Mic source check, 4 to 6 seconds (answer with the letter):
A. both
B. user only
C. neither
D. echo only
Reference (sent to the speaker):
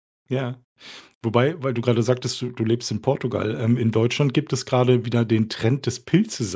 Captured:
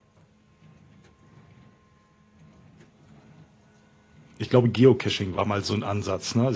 B